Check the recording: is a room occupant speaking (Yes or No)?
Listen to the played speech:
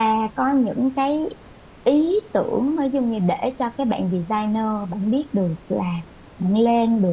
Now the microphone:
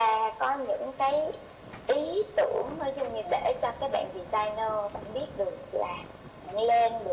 No